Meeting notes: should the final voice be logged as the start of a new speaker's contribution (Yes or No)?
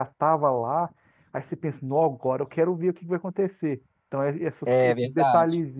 No